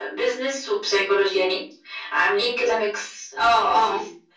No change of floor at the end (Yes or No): No